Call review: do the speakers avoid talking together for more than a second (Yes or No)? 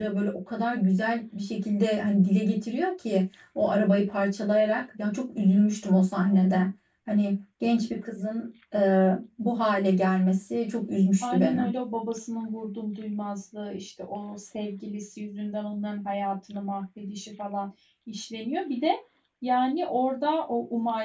Yes